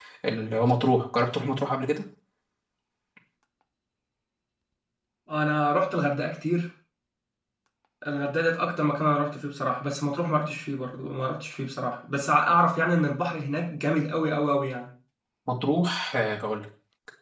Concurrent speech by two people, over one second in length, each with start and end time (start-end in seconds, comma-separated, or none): none